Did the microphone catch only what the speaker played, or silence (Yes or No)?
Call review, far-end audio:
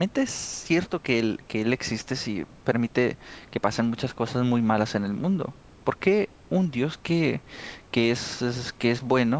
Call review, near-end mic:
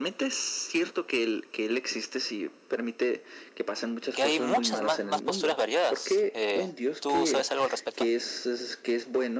No